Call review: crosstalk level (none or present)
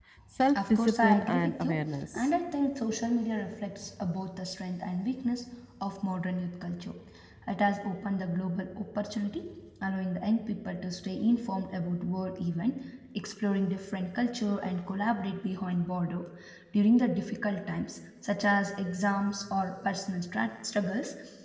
present